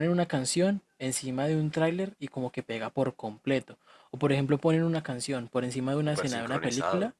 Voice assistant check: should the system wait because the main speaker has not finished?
Yes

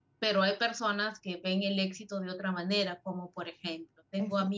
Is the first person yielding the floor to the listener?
No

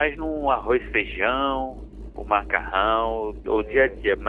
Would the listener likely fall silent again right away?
Yes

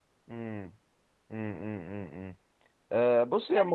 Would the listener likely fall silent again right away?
Yes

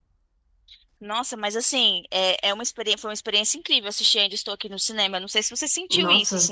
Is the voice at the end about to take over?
Yes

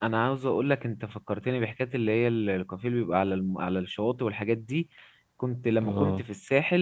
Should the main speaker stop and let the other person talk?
No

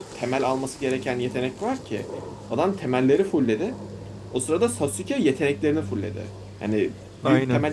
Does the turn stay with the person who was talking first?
Yes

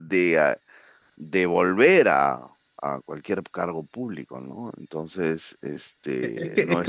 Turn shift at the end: Yes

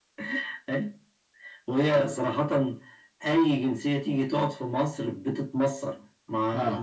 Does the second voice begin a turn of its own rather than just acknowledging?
No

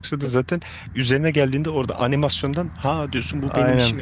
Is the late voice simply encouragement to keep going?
No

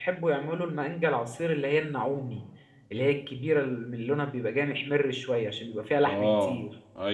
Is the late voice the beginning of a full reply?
Yes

